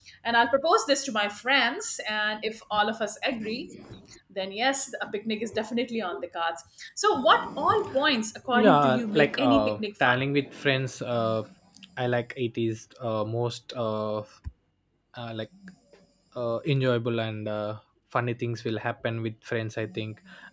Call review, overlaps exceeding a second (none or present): present